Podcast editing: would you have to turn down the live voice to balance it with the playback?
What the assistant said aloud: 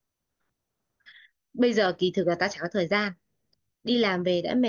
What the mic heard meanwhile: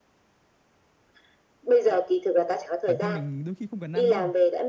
No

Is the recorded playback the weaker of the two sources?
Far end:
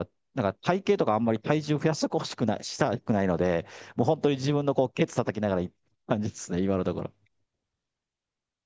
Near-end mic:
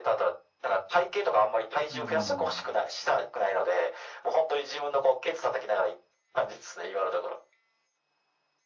No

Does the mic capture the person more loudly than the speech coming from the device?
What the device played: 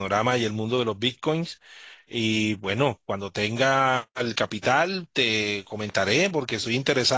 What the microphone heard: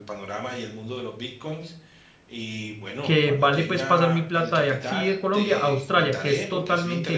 Yes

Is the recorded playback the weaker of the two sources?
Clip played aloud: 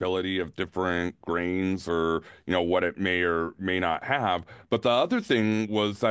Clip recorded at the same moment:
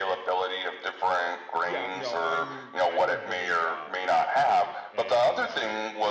No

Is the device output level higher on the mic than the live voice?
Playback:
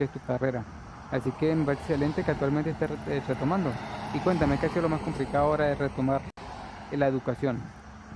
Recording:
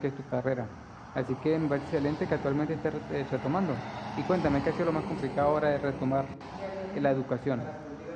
Yes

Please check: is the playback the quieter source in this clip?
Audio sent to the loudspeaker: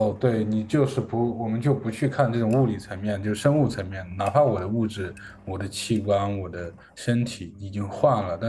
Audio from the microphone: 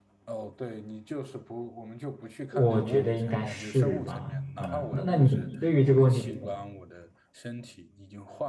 Yes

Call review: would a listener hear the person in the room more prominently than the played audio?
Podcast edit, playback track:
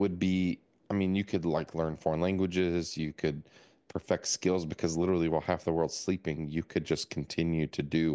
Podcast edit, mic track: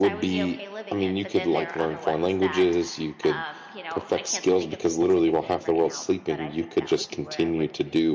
No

